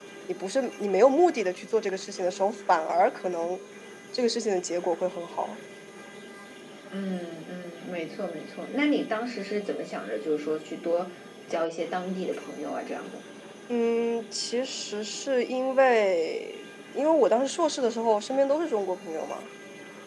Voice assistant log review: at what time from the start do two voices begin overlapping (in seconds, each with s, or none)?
none